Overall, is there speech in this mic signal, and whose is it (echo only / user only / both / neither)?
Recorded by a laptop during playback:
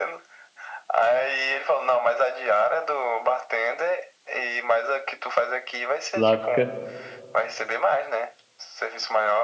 both